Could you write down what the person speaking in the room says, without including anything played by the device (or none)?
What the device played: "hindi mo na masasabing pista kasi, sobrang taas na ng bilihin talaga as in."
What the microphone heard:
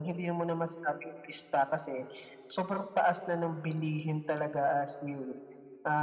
none